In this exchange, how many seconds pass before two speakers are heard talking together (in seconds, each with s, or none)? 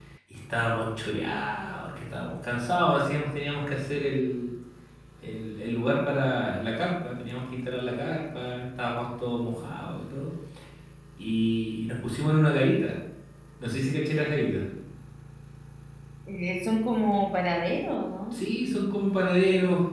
none